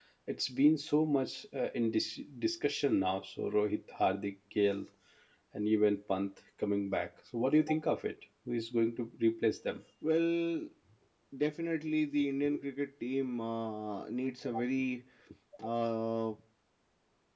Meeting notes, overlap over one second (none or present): none